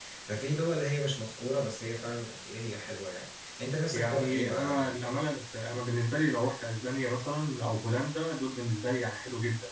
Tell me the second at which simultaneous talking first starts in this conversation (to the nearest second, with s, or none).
4 s